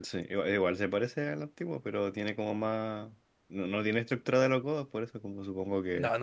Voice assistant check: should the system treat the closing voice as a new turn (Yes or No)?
Yes